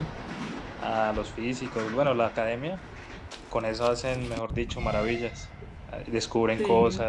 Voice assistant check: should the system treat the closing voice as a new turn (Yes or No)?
No